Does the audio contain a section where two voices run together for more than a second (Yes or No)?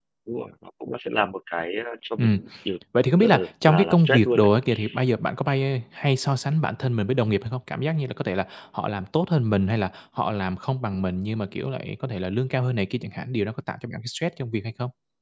Yes